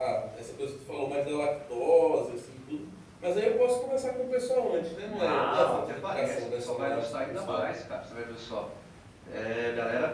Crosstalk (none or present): present